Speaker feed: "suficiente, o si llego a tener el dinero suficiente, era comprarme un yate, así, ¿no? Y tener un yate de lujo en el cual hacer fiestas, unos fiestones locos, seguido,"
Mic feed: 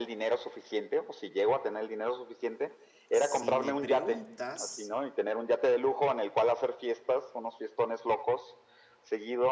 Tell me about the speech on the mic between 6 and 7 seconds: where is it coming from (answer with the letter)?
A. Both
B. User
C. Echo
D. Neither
C